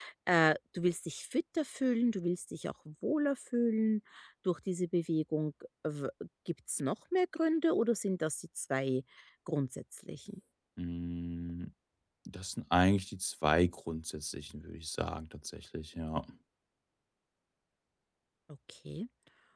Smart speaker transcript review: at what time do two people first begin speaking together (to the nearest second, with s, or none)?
none